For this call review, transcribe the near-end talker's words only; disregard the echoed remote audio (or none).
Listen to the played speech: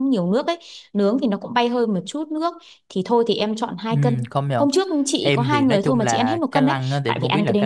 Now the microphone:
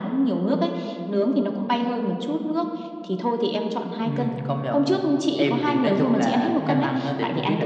ừ